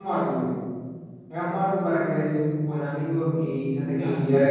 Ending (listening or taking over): listening